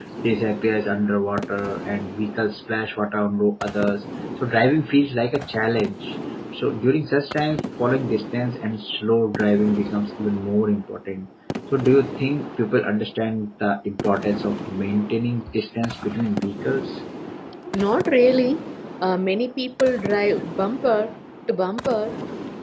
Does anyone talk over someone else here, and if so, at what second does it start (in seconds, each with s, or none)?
none